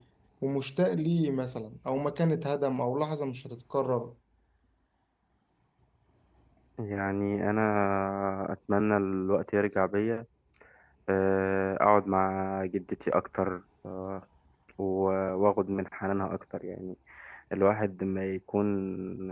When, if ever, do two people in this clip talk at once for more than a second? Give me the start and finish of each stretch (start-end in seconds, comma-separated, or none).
none